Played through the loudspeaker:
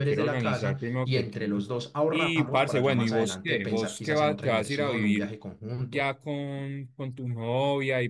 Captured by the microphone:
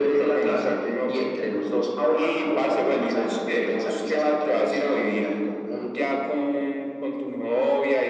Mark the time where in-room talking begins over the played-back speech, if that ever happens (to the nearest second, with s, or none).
none